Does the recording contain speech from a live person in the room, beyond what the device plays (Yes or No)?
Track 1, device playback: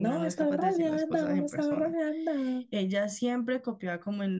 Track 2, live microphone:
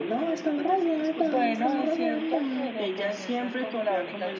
Yes